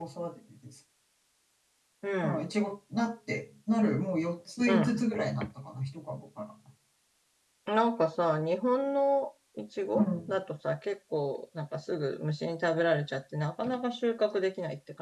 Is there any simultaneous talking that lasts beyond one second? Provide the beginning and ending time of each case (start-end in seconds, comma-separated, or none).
none